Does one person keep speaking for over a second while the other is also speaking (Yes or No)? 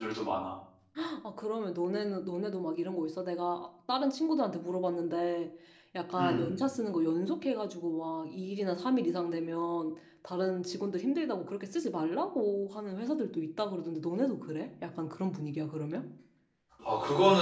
No